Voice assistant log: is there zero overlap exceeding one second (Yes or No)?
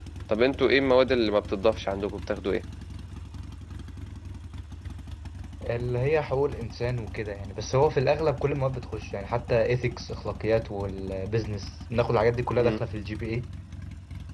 Yes